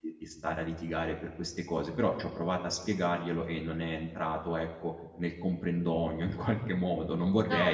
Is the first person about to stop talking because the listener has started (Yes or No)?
Yes